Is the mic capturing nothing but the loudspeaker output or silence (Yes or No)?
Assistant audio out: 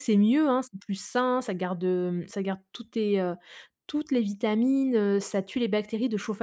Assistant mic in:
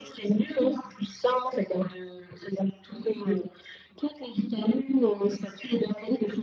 Yes